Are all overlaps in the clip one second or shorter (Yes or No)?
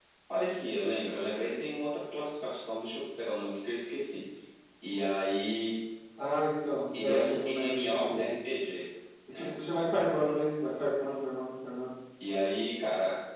No